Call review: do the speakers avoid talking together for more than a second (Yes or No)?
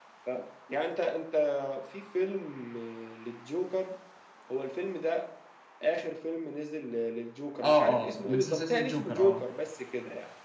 No